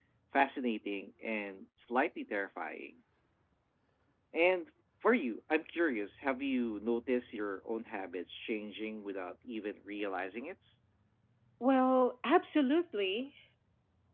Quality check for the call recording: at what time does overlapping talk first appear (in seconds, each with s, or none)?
none